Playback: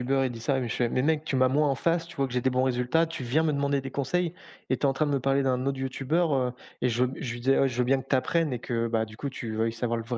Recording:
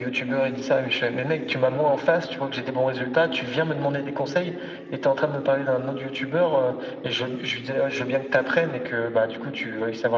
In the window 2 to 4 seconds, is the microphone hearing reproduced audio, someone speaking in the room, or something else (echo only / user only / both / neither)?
echo only